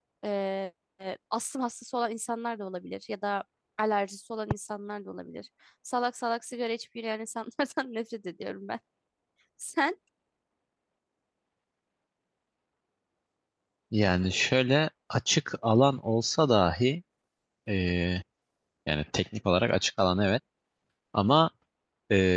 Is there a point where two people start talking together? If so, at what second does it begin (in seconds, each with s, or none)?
none